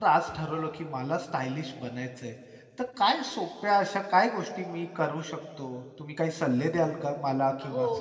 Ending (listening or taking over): taking over